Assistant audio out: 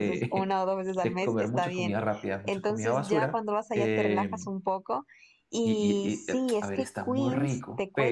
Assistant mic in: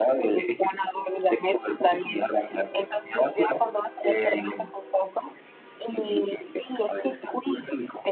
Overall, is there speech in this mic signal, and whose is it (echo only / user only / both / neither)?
echo only